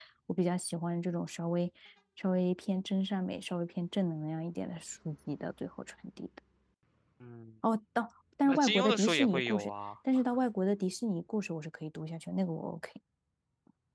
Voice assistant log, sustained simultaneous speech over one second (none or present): present